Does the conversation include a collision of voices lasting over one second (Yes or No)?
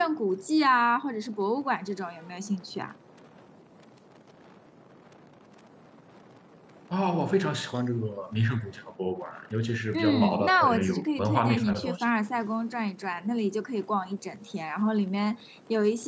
Yes